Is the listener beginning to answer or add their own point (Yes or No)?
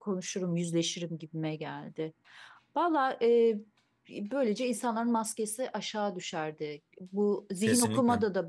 No